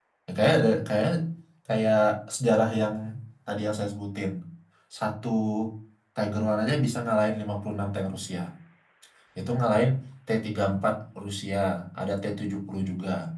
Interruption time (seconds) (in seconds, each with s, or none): none